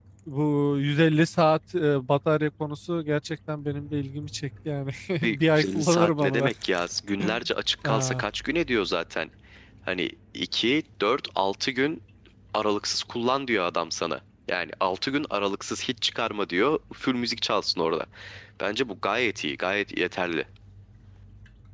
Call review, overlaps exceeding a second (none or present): present